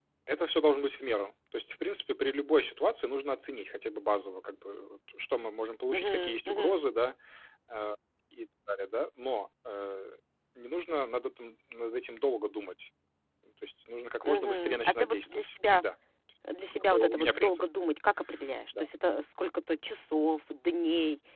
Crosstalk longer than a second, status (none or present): present